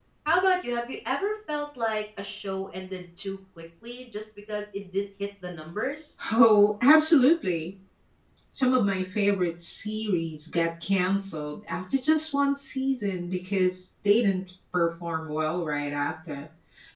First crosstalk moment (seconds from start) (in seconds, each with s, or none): none